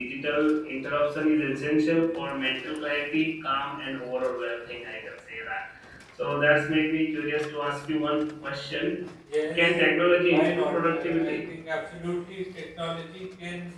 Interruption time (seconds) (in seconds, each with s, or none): 9.5 s